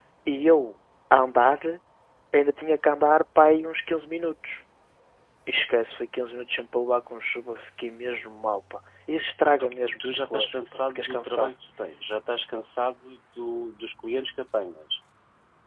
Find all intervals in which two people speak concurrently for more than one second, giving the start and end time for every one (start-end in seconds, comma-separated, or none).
9.6-11.5